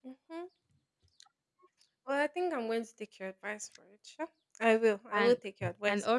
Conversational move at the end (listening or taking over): taking over